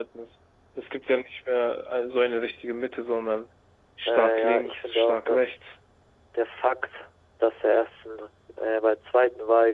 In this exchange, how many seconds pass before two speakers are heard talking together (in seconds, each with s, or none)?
4.0 s